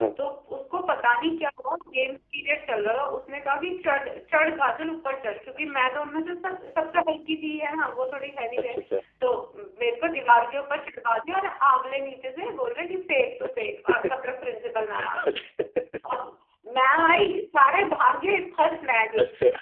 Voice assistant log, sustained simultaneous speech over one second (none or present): none